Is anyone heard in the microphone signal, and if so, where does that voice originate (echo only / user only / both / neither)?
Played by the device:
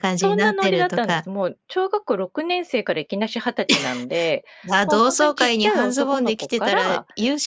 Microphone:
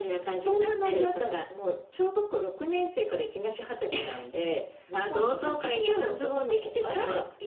echo only